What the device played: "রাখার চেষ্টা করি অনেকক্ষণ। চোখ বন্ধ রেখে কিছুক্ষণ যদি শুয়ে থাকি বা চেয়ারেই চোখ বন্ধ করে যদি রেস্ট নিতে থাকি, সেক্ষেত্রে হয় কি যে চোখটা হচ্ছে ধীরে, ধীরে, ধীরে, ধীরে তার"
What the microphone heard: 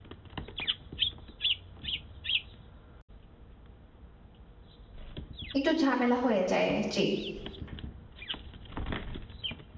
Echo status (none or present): none